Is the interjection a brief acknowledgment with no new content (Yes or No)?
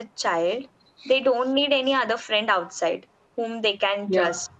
Yes